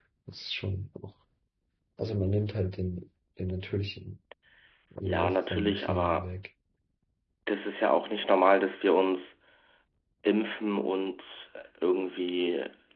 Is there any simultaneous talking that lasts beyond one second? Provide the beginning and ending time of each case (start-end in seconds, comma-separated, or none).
5.0-6.2